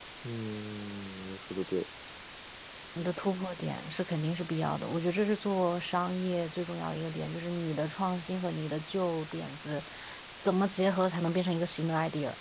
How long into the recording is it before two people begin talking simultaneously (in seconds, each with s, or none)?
none